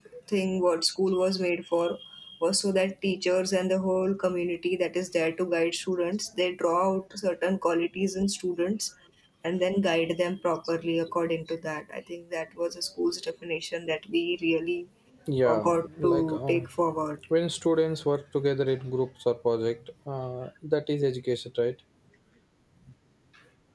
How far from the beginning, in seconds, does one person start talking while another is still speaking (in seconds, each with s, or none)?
15.4 s